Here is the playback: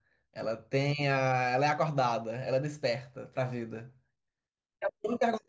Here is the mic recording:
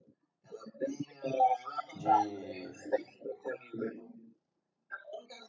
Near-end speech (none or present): present